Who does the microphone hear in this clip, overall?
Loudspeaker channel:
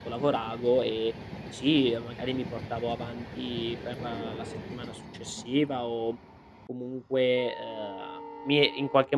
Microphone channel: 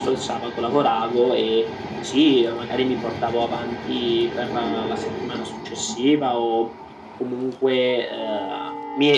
echo only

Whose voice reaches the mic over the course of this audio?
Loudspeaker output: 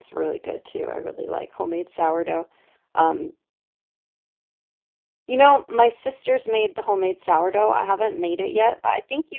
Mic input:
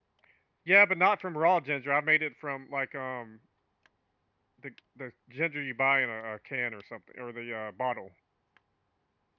user only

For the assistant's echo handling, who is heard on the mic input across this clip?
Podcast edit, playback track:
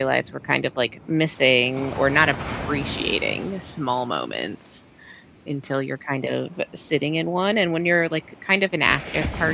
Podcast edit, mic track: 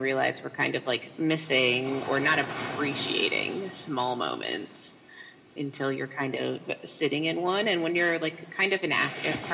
echo only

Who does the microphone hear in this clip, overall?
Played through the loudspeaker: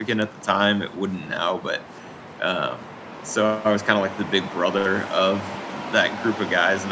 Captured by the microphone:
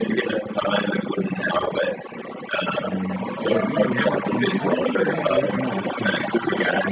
both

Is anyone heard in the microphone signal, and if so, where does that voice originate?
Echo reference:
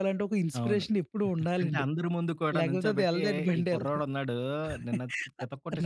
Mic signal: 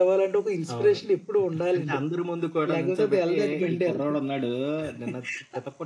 echo only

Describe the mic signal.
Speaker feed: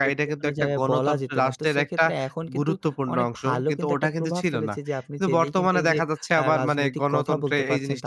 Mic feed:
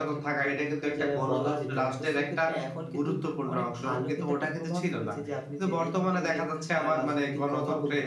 echo only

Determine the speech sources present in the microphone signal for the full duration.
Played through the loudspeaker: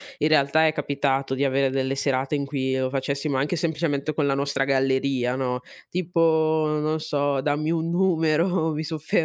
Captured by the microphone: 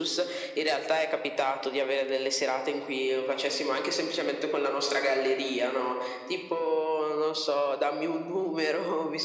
echo only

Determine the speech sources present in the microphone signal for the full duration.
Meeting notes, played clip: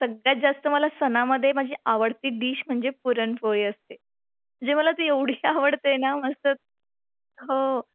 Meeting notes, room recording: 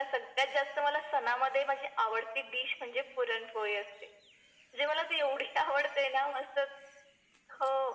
echo only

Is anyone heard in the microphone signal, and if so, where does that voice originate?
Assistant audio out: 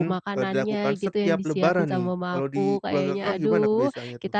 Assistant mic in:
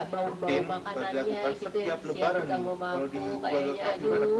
echo only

